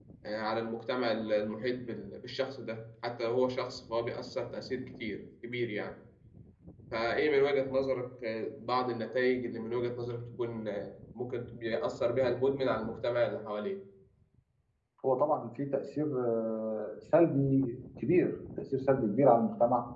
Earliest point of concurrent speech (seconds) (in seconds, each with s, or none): none